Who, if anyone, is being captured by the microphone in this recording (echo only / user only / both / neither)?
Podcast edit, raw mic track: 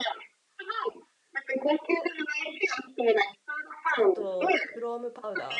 both